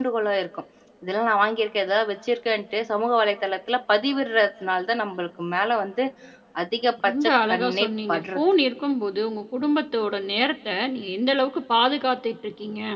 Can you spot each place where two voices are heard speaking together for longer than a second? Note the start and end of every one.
7.0-8.4

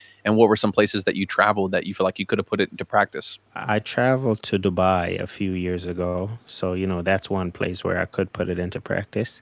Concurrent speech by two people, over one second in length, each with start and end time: none

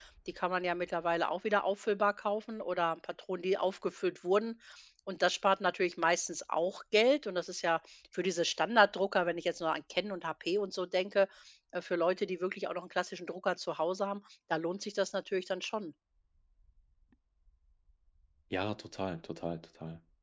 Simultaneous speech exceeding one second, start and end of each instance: none

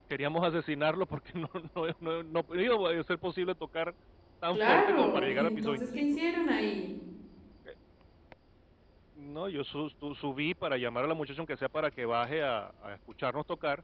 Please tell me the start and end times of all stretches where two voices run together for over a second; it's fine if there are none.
4.5-6.0

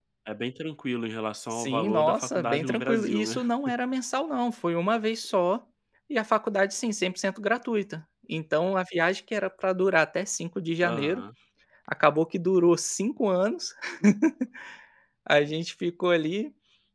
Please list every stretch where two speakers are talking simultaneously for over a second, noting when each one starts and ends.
1.5-3.4

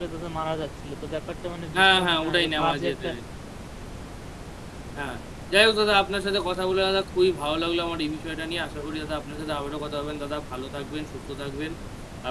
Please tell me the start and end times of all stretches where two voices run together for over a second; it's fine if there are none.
1.7-3.1

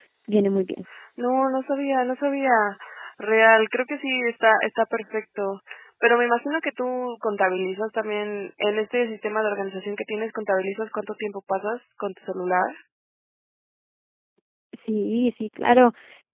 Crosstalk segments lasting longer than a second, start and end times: none

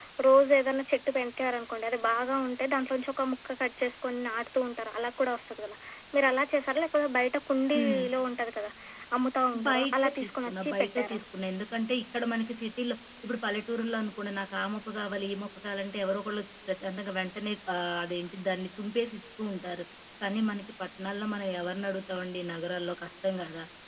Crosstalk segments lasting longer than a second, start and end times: 9.7-11.2

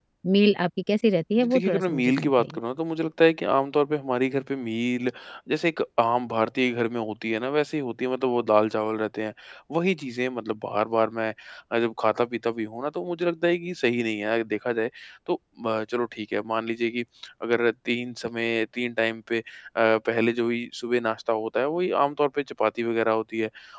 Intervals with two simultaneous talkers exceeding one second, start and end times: 1.4-2.6

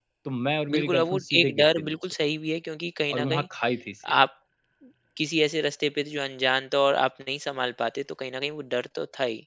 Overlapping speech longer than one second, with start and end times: 0.7-2.0

